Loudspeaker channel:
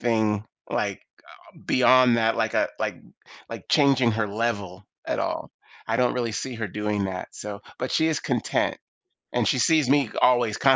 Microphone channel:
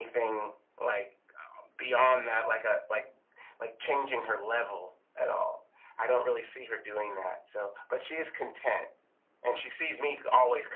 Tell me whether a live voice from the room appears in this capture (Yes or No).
No